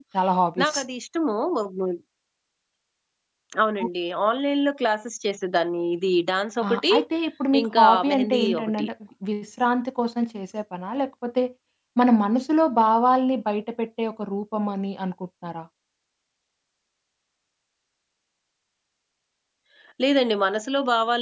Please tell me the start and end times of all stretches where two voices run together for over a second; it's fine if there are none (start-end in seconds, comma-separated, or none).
7.6-8.9